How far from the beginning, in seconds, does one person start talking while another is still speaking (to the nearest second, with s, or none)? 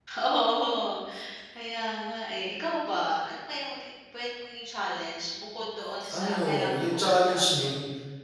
6 s